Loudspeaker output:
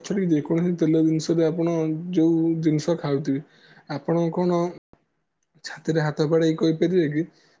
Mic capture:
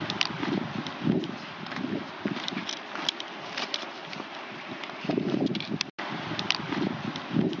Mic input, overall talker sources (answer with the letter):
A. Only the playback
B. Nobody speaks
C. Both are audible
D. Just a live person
B